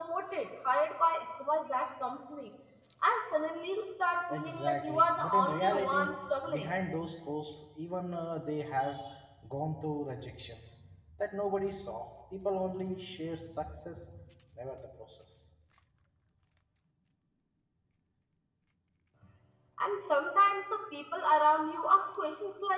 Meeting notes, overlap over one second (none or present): present